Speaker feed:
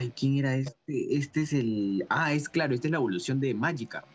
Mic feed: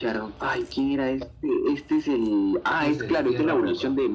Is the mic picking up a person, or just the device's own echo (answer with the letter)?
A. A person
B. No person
A